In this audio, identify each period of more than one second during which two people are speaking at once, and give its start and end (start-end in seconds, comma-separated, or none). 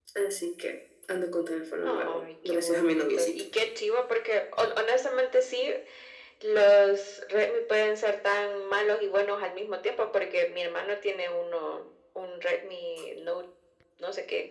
1.9-3.4